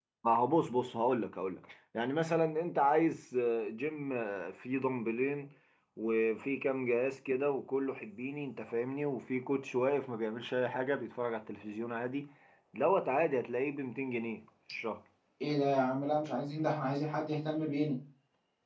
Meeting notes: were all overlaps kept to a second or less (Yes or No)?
Yes